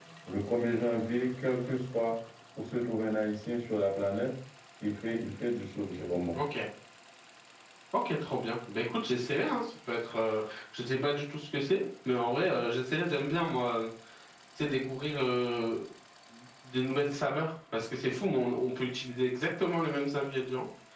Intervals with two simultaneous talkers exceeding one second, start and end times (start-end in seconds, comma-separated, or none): none